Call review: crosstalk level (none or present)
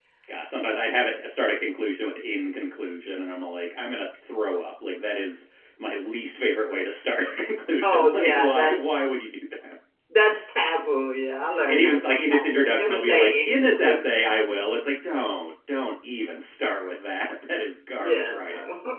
present